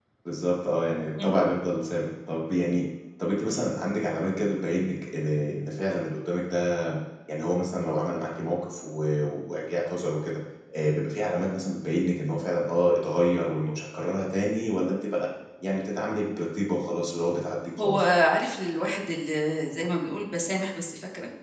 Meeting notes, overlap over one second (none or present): none